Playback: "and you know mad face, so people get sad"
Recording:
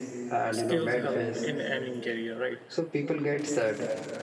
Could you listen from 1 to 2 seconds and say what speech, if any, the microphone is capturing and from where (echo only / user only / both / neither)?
both